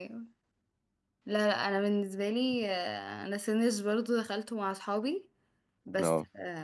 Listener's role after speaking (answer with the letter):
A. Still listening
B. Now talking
A